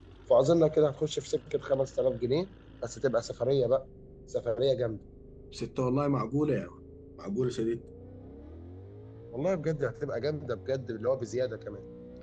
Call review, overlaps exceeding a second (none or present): none